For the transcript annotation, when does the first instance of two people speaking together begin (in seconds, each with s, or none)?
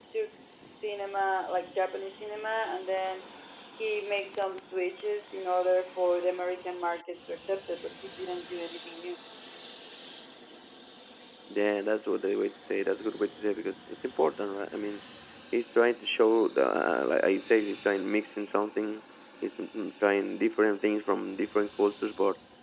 none